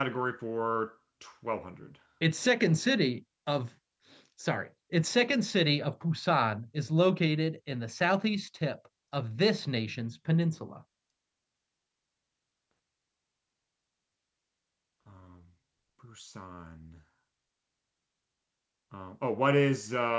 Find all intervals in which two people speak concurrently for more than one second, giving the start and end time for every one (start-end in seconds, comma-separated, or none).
none